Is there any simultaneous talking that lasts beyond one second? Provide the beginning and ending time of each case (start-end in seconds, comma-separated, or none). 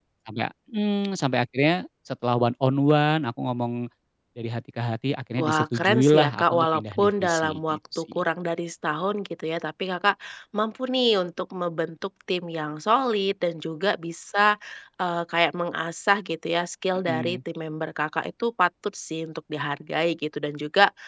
5.4-8.2